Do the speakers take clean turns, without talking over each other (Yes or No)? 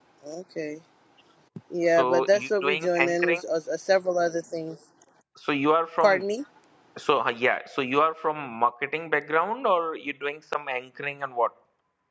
No